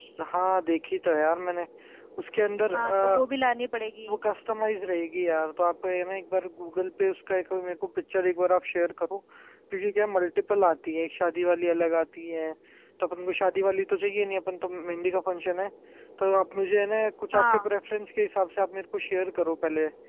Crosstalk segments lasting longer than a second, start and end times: none

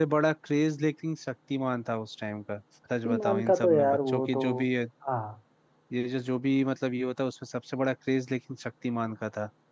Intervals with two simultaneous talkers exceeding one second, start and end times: 3.0-4.4

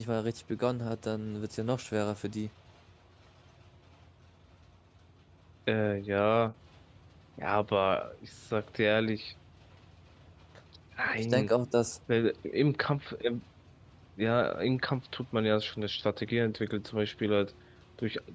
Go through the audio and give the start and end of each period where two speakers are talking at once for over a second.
none

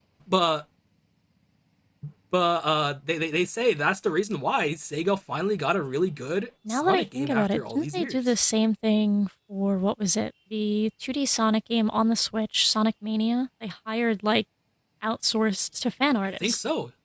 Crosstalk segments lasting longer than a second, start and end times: 6.7-8.2

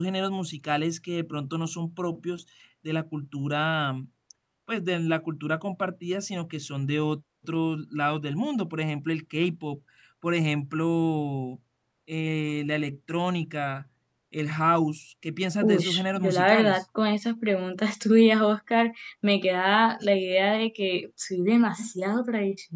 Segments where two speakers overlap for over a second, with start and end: 15.6-16.8

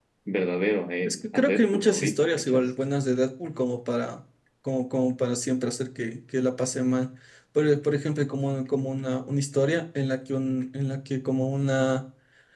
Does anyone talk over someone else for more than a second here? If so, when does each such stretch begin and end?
1.1-2.6

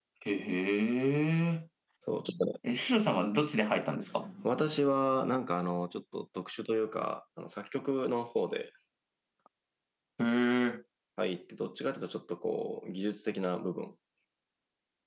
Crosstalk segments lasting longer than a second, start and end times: none

